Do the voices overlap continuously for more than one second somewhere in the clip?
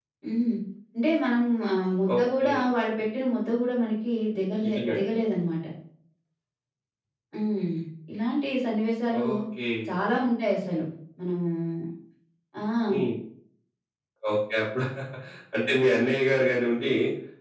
No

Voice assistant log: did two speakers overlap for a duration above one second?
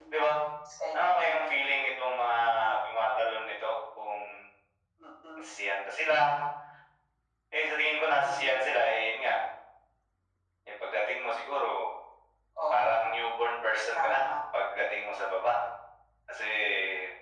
No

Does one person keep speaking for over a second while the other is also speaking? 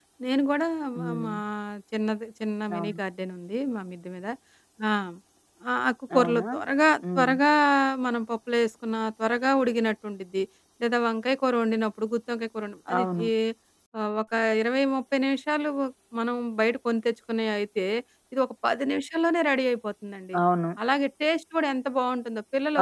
No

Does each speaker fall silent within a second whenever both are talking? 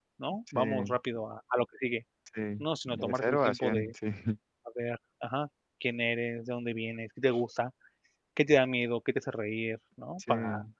No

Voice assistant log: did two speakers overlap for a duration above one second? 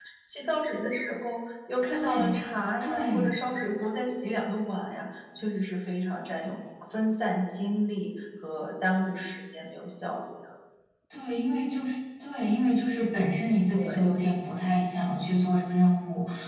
No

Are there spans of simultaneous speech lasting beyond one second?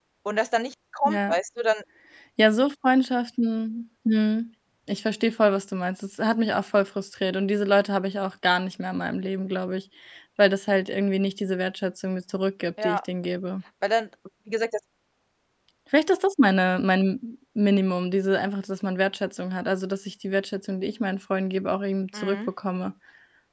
No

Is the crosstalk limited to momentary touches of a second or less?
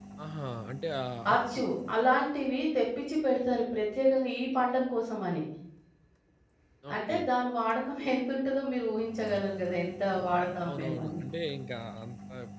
Yes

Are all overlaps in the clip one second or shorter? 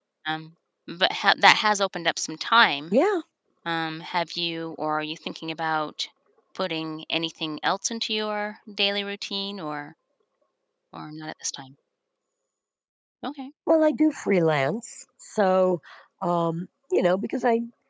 Yes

